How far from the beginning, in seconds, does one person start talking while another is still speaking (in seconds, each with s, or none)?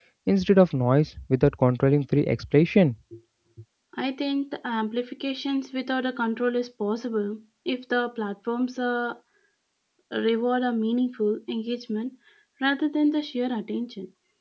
none